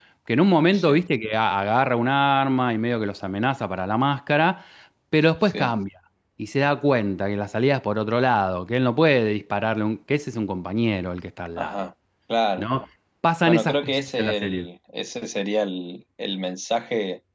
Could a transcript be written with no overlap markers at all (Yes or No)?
No